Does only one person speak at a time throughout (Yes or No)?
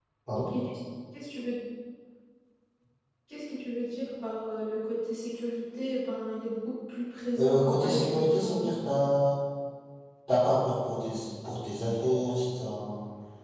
No